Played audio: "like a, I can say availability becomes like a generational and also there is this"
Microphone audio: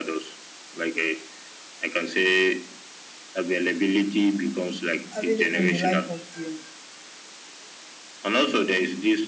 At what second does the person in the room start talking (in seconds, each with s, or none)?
5.1 s